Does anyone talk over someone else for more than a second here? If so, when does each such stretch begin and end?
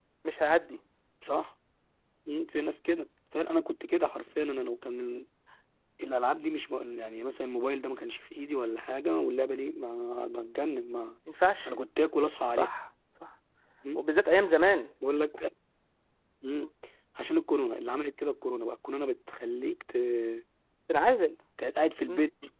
none

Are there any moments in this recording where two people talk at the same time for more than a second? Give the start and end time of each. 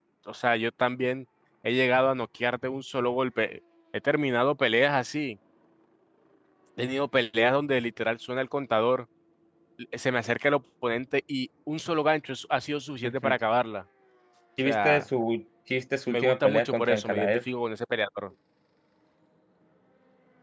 16.1-17.4

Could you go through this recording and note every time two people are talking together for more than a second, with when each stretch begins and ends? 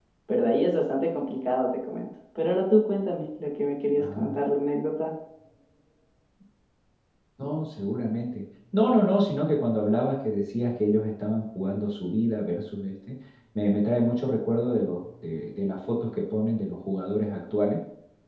none

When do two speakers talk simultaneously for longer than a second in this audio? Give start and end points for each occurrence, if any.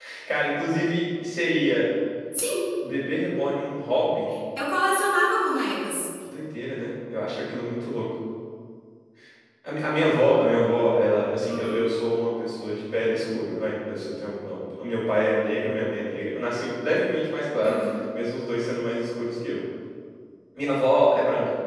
none

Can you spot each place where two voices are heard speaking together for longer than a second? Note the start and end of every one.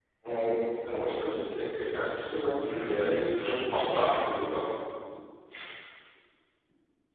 2.6-4.5

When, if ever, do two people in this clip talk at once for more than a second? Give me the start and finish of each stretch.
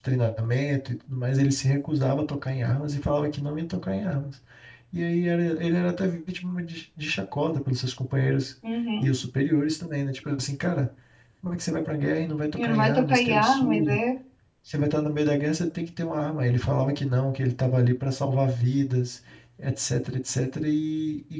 12.5-14.0

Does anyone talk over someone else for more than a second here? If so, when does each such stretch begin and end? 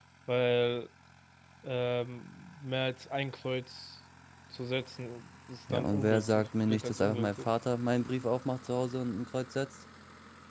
5.7-7.5

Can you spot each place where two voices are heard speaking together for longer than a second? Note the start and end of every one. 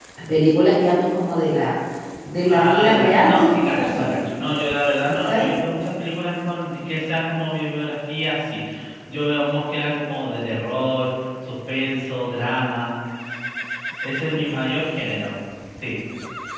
2.5-4.2

